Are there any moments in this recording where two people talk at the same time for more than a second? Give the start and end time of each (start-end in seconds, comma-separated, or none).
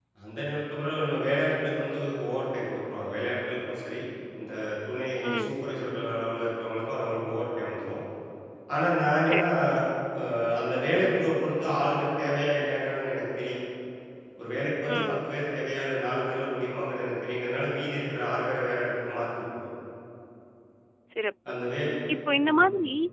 none